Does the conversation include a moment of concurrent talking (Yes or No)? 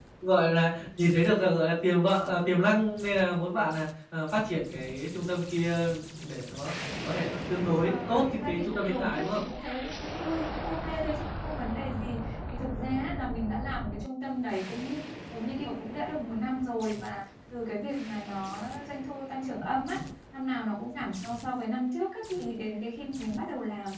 Yes